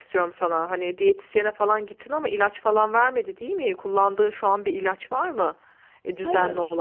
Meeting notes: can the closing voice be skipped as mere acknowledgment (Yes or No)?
No